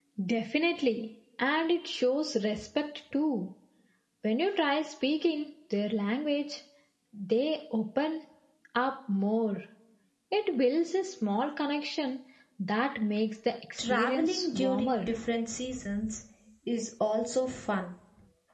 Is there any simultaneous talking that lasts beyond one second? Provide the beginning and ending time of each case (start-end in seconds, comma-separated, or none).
13.8-15.1